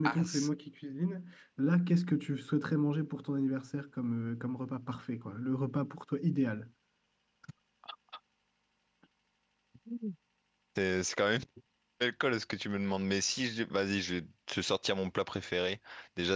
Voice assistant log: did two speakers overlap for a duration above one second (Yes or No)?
No